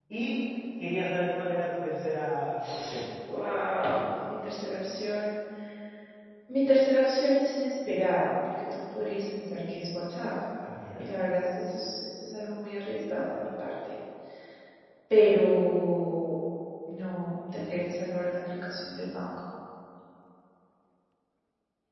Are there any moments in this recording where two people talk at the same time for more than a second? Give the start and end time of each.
none

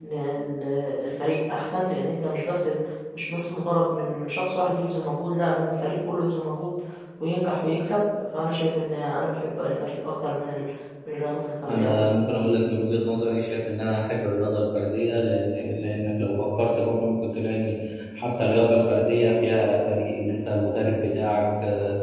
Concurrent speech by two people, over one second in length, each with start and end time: none

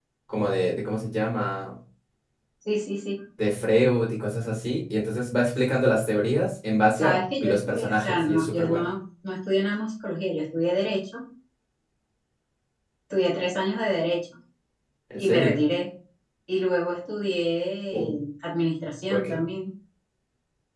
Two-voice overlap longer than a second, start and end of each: 7.0-8.8

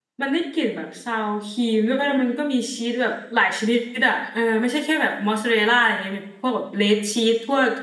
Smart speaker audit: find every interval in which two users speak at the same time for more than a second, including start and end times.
none

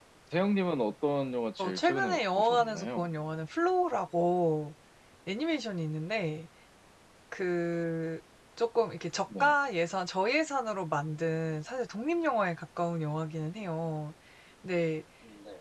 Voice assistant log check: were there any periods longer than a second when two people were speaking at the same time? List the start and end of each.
1.6-3.1

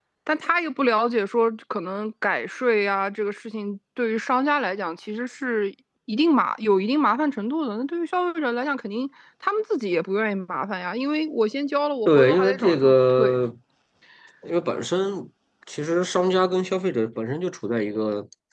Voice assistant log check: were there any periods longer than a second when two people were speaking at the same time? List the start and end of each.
12.1-13.4

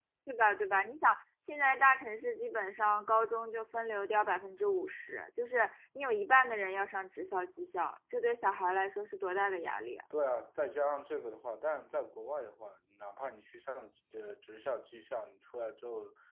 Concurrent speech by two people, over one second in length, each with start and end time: none

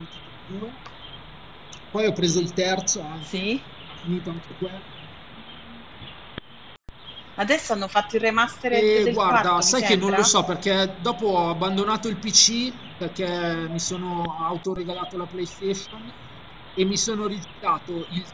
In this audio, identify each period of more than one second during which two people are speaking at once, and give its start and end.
8.7-10.3

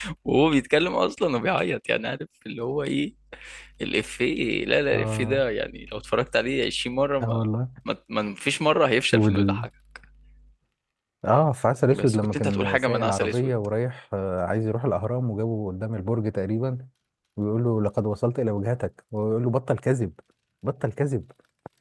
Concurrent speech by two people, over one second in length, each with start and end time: 11.9-13.5

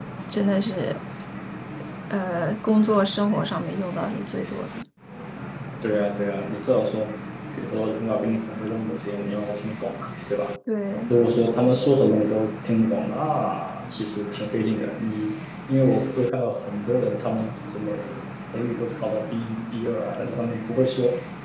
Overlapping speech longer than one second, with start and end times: none

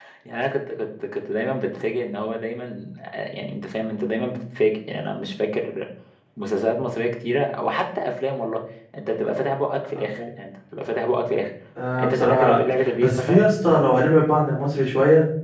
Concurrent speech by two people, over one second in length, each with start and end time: 12.0-13.4

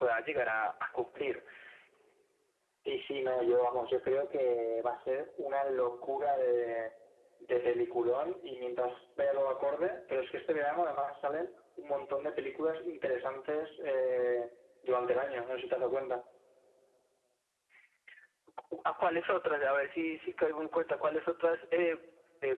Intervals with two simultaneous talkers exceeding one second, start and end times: none

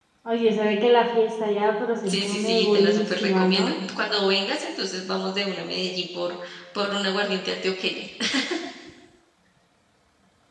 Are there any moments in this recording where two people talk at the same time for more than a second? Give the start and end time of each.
2.0-3.7

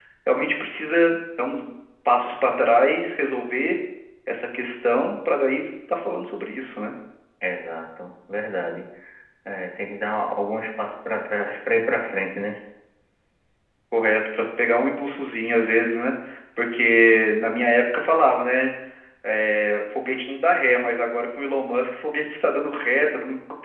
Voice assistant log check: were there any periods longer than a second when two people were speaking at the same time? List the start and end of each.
none

